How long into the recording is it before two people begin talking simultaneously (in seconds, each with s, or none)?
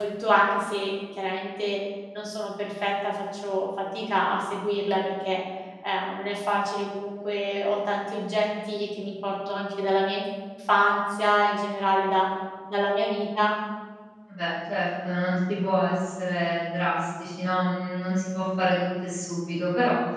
none